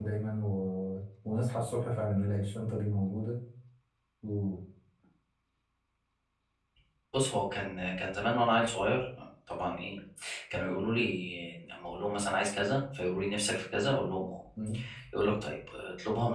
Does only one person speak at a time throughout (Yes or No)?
Yes